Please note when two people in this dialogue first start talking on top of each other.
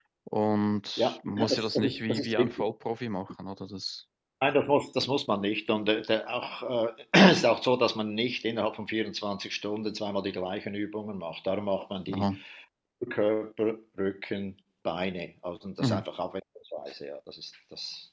1.0 s

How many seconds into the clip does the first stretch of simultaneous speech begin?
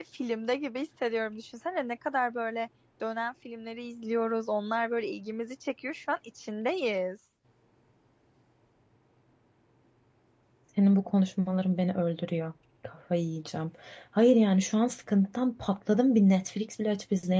none

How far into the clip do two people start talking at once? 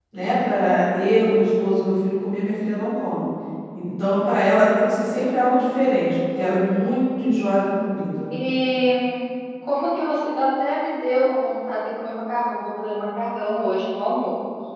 none

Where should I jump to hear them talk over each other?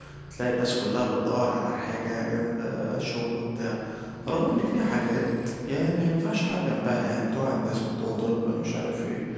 none

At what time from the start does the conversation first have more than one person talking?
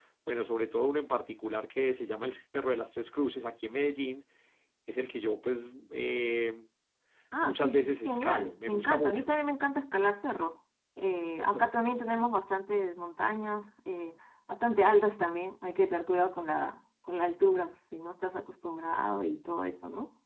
7.4 s

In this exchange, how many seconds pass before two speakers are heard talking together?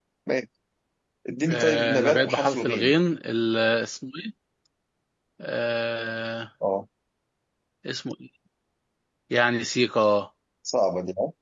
1.5 s

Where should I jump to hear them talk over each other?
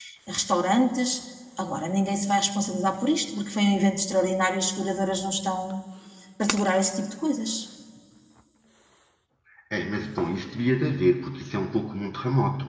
none

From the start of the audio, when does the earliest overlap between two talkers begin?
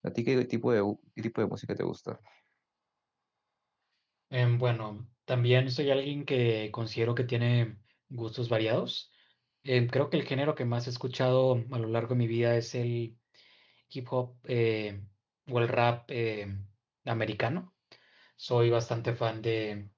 none

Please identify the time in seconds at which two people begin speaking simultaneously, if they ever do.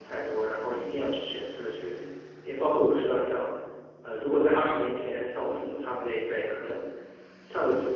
none

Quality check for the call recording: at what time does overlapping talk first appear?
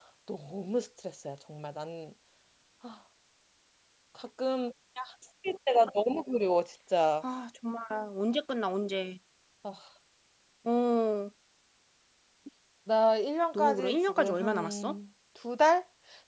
13.5 s

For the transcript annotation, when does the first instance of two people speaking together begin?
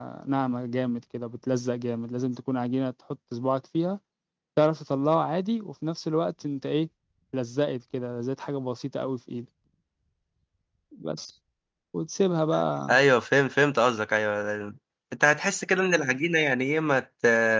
none

